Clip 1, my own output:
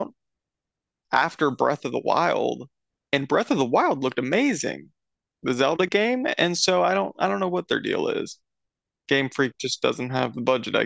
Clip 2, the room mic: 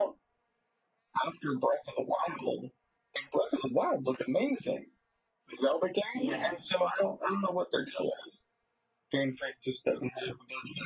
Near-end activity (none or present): present